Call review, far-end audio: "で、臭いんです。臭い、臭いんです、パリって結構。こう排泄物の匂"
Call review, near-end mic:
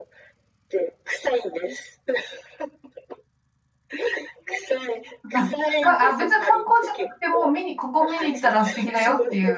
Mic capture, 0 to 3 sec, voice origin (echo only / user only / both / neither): echo only